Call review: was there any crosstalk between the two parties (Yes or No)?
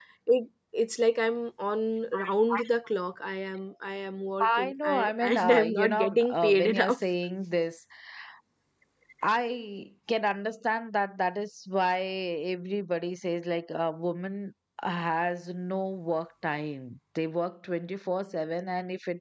Yes